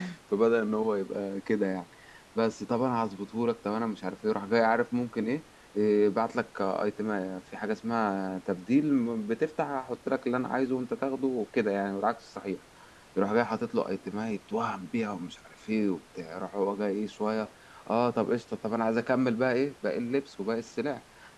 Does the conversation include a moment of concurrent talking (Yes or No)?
No